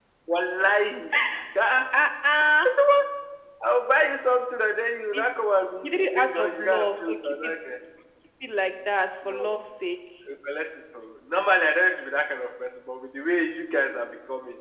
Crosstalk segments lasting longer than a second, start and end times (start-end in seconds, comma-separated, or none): 5.8-7.5